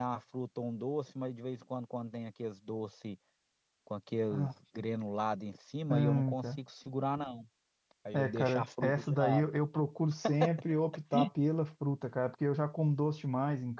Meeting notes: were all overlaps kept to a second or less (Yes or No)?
No